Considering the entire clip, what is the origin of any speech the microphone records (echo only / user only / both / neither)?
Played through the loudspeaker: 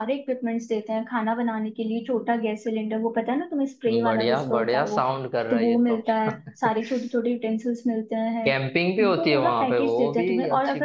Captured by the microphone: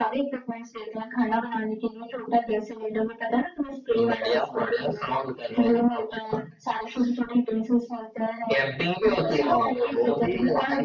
echo only